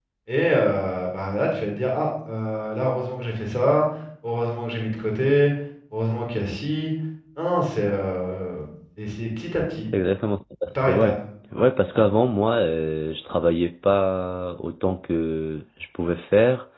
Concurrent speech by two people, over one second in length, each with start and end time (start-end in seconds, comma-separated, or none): none